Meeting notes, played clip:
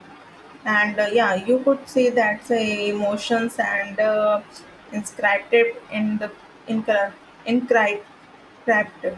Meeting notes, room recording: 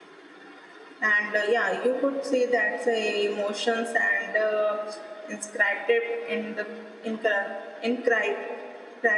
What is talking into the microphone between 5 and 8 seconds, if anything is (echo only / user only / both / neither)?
echo only